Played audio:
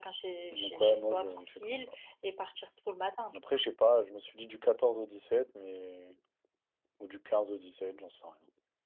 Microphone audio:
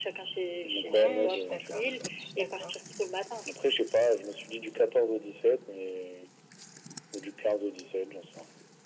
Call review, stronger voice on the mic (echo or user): echo